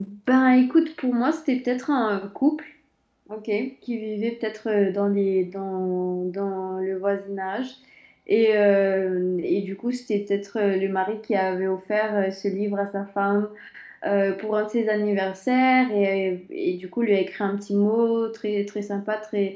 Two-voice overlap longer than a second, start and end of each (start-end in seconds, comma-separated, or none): none